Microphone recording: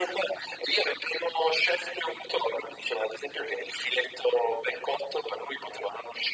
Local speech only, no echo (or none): none